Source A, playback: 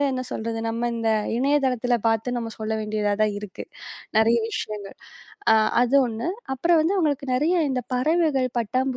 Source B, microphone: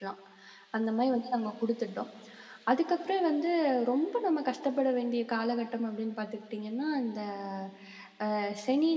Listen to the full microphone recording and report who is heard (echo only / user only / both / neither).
user only